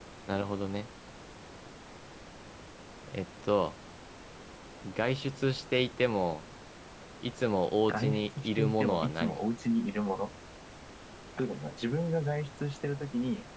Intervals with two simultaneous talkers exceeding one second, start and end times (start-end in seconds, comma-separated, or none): 7.9-9.4